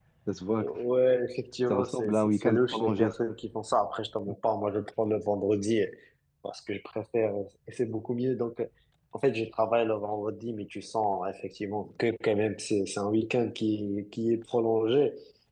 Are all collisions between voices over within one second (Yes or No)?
No